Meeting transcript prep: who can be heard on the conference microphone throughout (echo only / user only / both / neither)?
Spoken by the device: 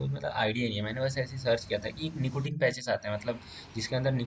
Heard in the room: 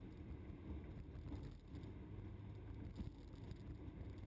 neither